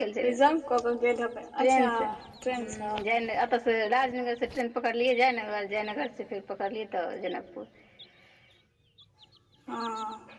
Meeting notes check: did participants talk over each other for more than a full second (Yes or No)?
No